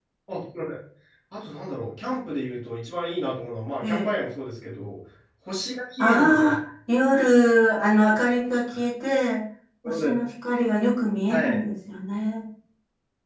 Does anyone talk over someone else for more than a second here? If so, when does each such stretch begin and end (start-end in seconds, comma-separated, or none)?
none